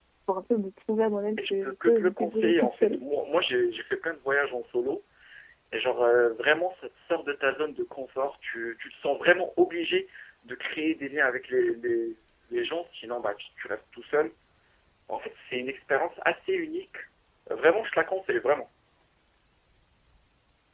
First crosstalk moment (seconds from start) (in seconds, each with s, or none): 1.4 s